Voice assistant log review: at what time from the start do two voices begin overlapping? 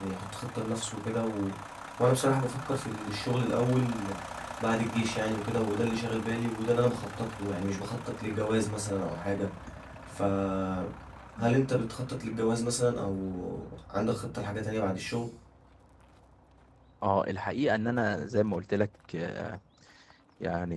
none

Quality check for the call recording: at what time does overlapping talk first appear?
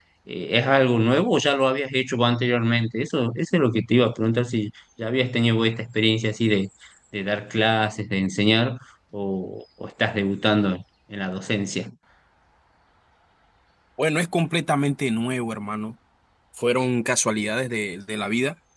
none

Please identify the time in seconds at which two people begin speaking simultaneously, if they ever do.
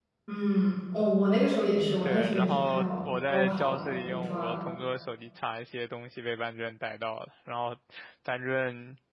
2.0 s

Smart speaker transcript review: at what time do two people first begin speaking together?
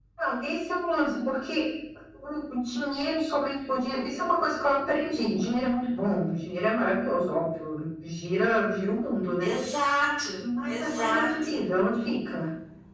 10.4 s

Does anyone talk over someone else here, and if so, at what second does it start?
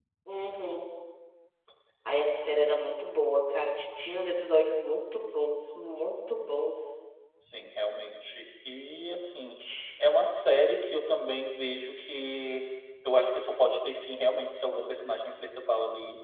none

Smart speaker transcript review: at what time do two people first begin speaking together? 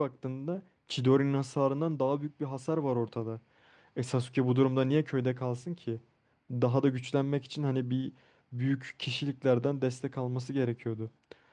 none

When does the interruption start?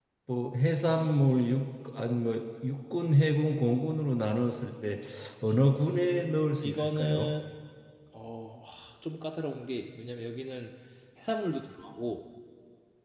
5.8 s

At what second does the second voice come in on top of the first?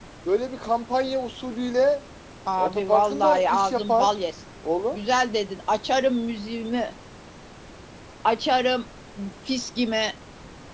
2.6 s

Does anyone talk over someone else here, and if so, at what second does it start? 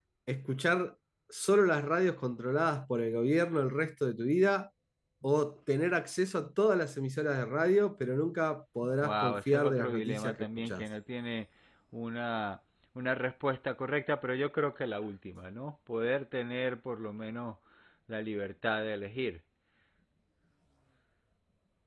9.0 s

